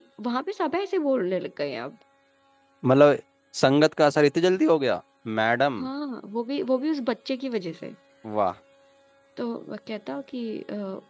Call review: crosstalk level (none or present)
none